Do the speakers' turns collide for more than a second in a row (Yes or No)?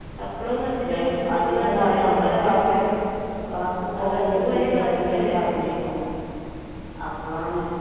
Yes